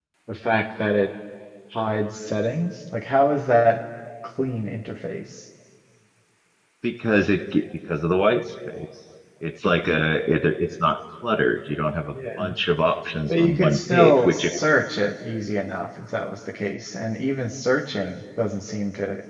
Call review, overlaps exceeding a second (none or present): present